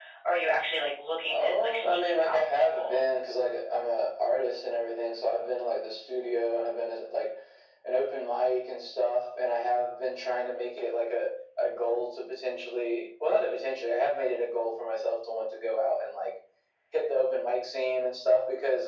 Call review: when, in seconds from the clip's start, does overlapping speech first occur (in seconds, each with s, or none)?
1.3 s